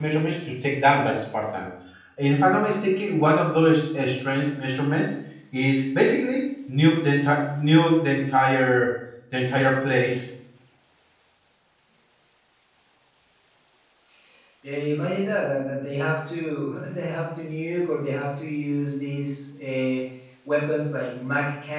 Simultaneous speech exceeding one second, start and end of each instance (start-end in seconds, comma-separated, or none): none